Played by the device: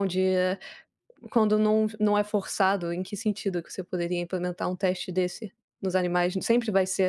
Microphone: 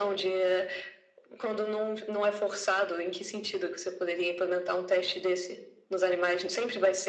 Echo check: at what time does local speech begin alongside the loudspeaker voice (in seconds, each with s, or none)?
none